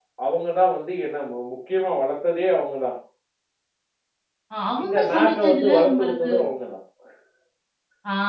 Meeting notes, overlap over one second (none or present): present